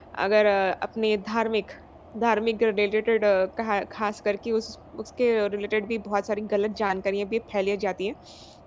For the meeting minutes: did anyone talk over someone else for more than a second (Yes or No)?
No